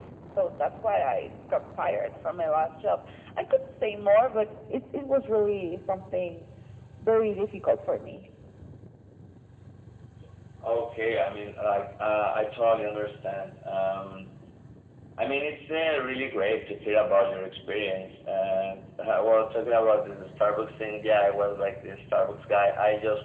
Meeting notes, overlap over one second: none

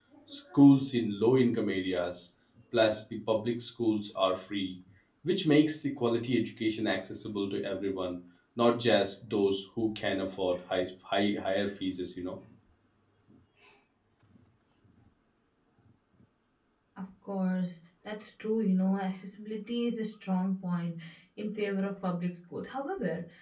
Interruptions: none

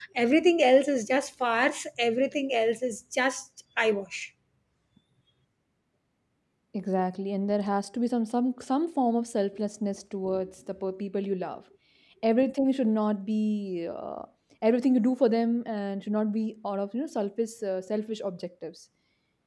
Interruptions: none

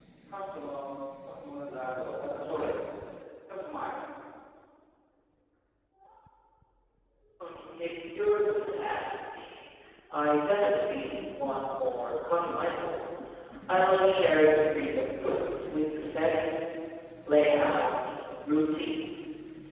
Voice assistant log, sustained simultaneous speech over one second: none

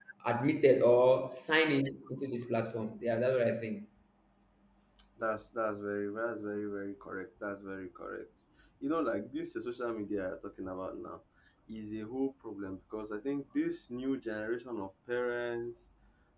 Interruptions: none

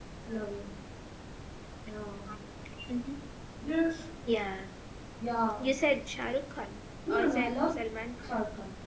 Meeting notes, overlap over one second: none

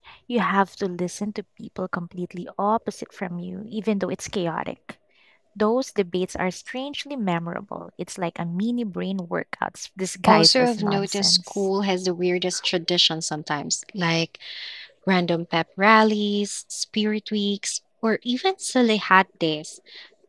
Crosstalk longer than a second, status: present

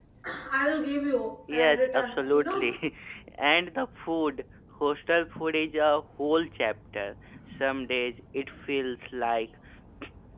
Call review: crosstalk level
present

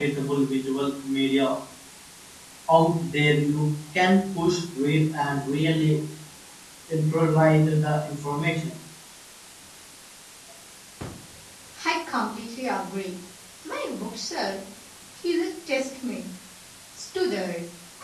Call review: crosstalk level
none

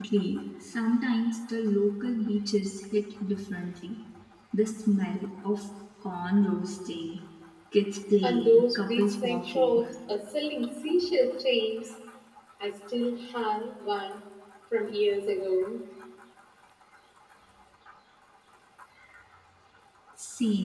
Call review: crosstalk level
present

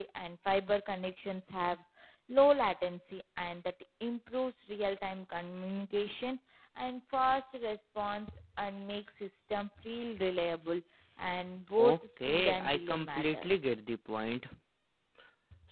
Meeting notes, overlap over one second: present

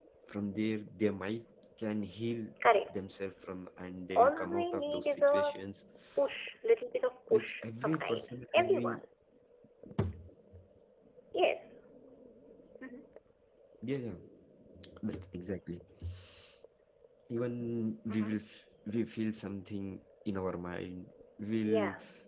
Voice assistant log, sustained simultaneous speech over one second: present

